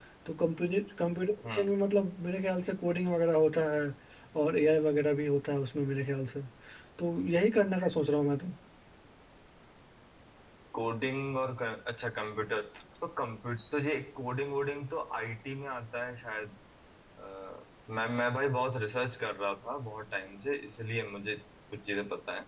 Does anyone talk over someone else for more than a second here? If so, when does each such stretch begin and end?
none

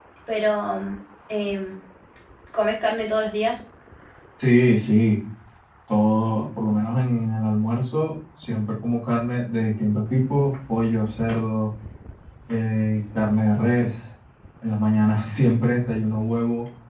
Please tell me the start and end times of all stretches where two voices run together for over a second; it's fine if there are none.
none

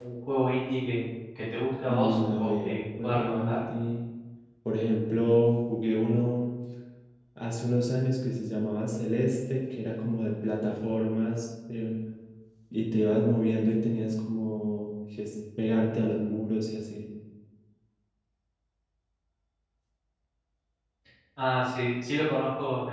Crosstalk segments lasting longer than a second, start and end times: 1.9-3.6

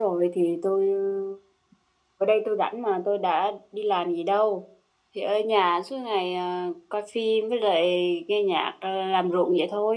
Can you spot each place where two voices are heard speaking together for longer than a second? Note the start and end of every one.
none

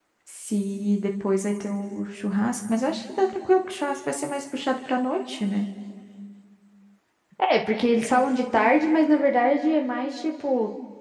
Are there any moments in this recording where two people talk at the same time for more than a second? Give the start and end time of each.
none

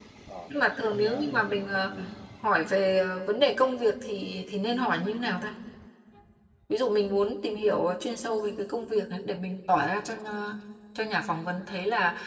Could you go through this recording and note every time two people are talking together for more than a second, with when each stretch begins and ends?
0.5-1.9

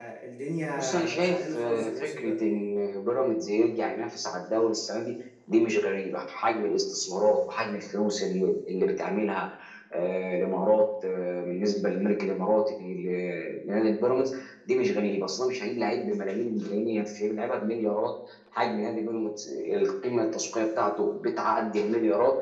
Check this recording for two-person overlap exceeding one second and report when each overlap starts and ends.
0.7-2.3

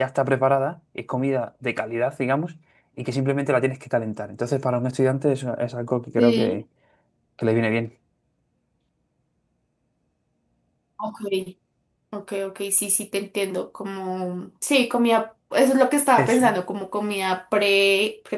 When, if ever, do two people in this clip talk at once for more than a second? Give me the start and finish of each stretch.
none

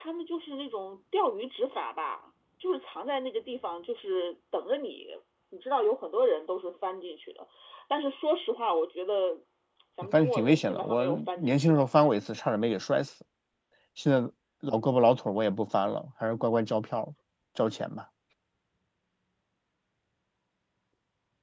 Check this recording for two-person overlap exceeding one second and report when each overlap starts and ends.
10.1-11.8

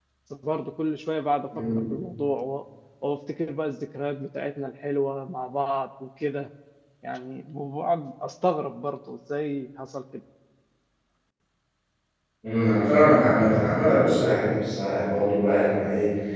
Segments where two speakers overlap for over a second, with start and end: none

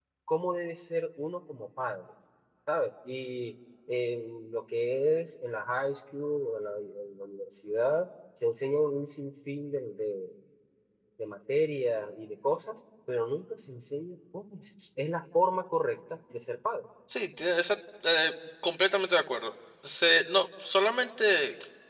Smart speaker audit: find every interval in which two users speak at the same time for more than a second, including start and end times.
none

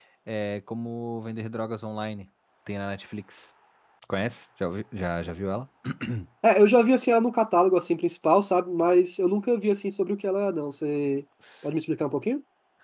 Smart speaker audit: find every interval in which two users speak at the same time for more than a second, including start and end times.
none

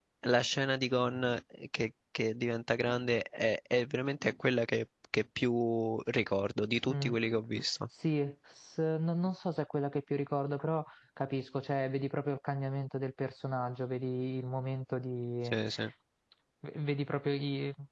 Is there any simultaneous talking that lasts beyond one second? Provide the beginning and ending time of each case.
none

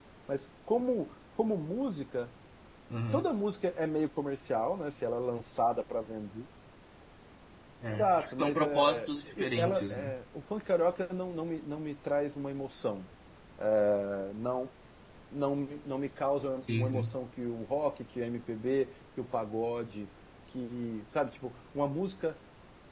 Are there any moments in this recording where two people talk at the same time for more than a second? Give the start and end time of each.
8.0-10.1

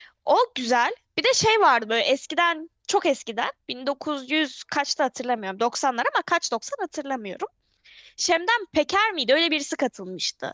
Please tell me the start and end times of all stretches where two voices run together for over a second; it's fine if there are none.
none

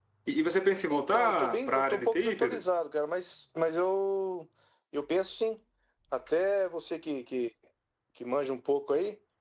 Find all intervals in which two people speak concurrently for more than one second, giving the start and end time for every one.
0.9-2.6

